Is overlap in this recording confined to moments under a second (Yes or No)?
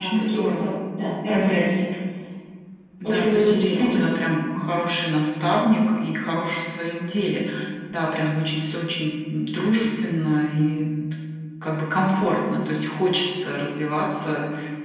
No